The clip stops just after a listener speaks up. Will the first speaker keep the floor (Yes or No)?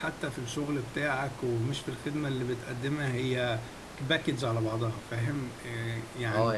No